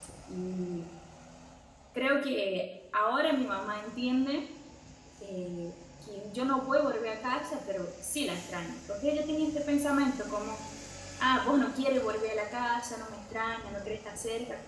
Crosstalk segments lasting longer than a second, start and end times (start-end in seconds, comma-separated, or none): none